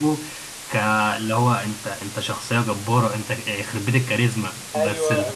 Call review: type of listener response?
taking over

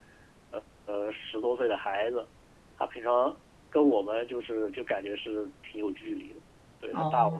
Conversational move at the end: listening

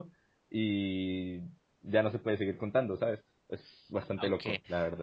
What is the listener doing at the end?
taking over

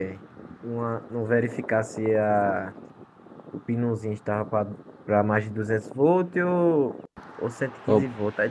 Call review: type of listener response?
listening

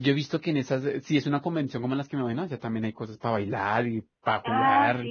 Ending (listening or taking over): taking over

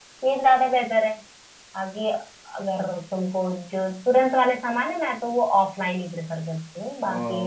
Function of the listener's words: taking over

